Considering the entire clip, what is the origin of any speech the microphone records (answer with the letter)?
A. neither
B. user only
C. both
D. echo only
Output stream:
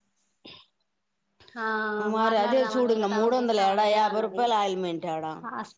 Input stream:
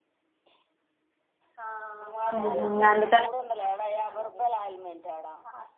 C